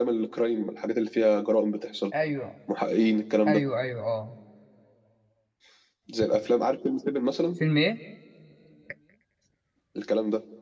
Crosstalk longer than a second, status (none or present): none